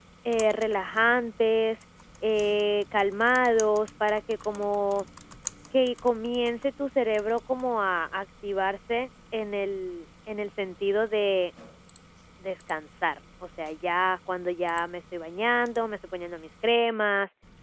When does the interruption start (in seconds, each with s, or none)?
none